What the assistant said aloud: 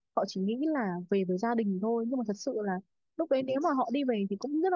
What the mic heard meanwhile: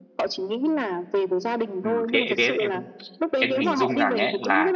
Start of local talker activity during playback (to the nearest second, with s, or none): 2 s